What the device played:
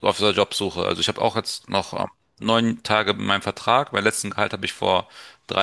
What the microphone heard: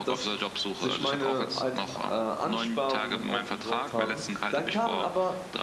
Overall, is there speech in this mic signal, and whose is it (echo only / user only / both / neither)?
both